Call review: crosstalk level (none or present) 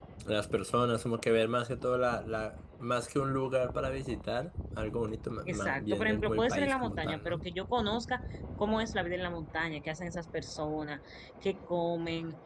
present